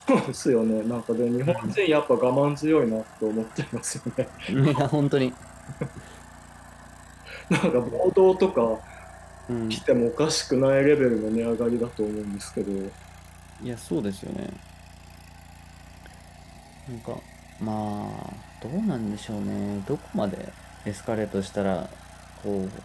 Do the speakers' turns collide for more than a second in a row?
No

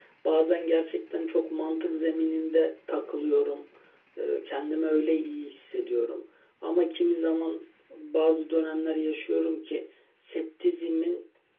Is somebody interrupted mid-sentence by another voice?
No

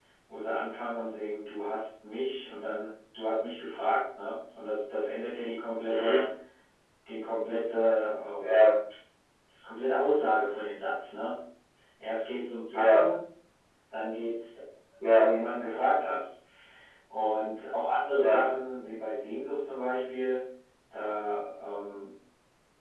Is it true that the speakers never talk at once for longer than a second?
Yes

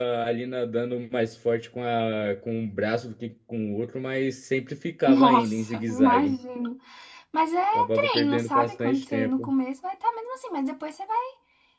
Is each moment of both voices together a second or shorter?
No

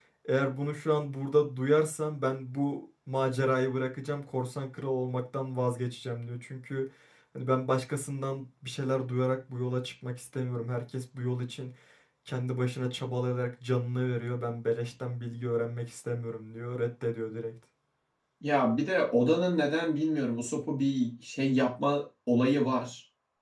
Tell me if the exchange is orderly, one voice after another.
Yes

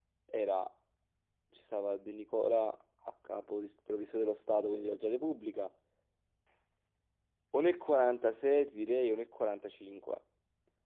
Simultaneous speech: No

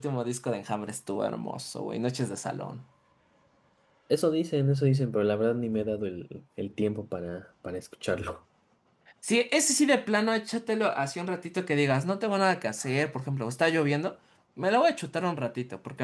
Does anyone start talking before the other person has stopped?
No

